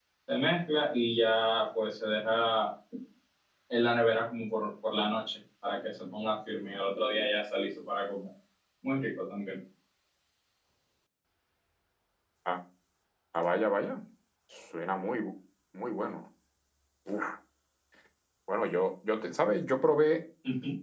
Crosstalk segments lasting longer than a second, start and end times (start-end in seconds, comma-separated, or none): none